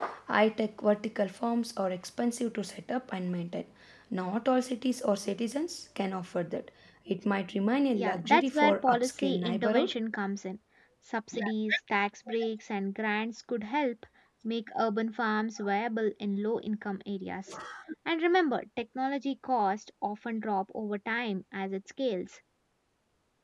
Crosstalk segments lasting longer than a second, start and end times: 8.0-9.9

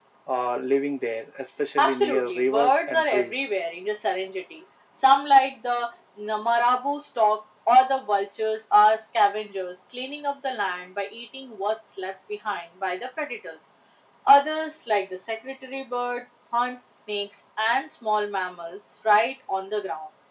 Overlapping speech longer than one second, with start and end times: 1.8-3.5

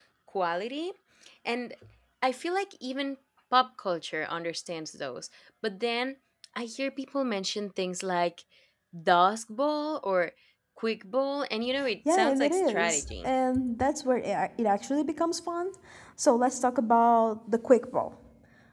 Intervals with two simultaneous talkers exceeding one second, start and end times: 12.1-13.3

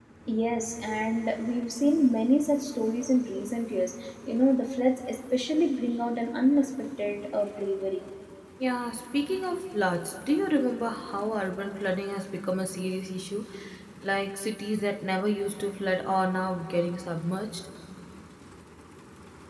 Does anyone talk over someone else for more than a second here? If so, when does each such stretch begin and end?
none

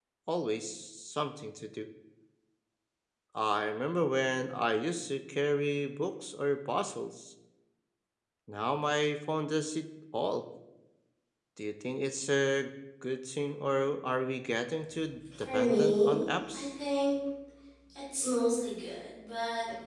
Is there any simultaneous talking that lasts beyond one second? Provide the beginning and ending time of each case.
15.4-16.7

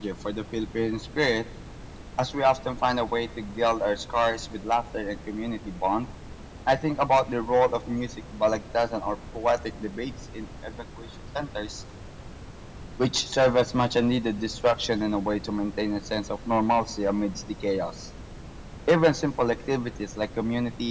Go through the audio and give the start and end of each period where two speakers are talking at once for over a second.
none

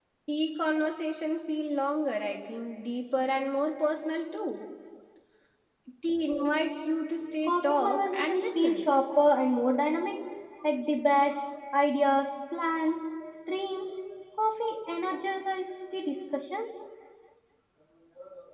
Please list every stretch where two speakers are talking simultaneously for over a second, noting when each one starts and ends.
7.5-8.9

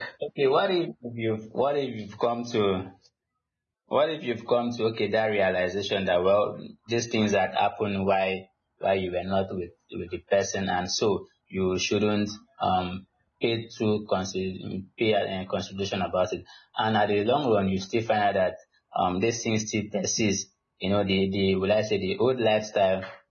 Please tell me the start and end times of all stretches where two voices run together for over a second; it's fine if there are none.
none

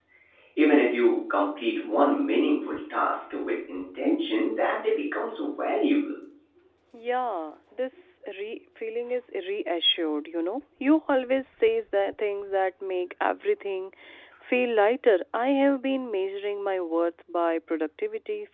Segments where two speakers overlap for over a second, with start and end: none

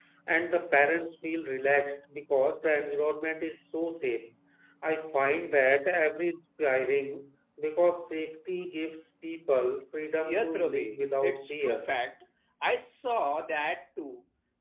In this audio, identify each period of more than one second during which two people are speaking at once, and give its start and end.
10.2-11.9

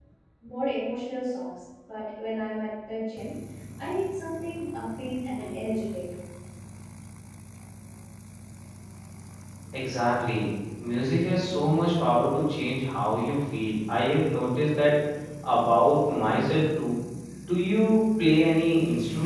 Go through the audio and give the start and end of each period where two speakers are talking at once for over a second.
none

